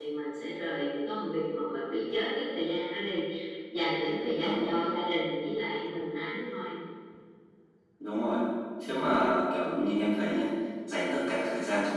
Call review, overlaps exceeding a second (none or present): none